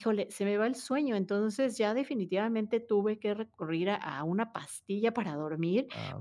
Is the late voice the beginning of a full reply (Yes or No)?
No